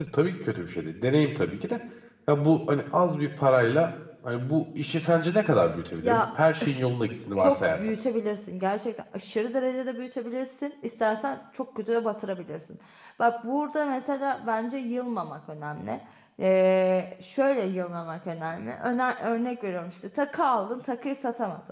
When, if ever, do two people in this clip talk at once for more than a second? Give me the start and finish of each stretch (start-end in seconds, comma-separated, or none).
none